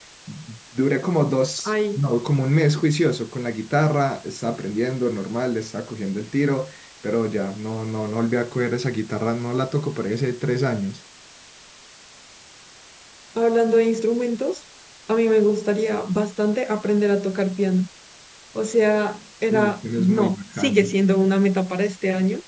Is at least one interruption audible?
Yes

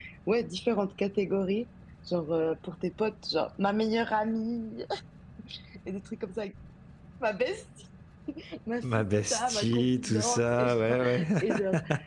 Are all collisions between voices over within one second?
No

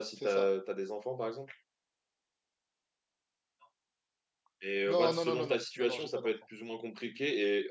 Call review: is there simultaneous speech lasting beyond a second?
Yes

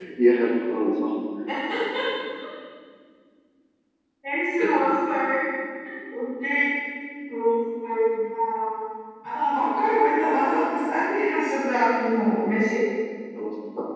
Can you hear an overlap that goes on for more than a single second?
No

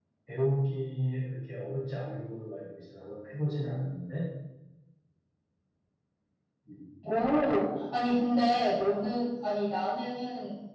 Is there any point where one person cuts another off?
No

